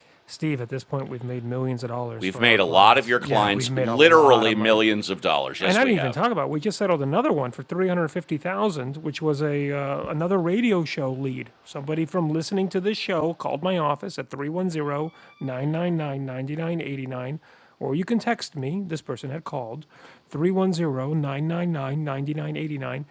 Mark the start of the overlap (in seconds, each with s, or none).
2.2 s